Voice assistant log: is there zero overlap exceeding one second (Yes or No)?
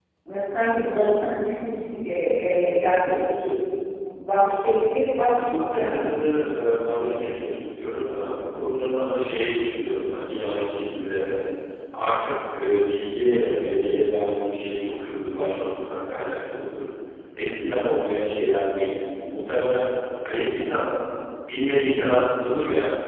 Yes